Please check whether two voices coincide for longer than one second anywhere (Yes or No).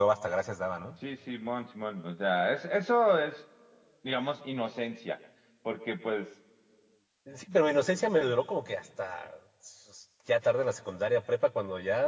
No